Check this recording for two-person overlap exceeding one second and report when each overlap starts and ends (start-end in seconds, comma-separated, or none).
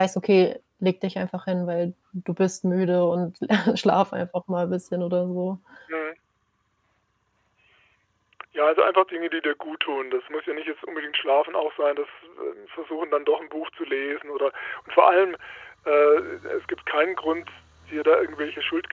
none